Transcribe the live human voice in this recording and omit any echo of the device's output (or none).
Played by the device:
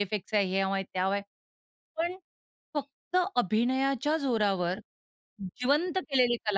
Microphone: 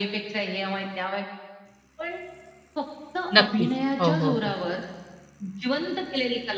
नक्कीच. हो, हो, हो.